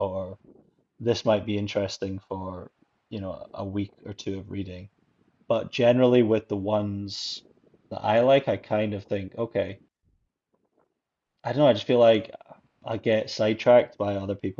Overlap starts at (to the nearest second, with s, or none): none